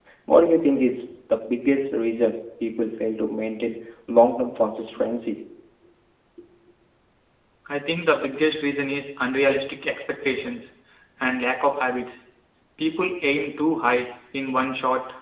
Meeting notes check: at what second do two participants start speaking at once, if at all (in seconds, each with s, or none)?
none